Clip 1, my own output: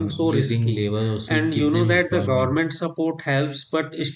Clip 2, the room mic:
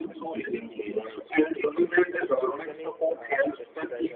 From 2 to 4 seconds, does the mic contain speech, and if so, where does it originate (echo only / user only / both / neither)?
both